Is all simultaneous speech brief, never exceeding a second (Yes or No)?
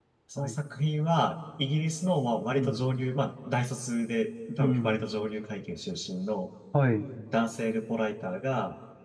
Yes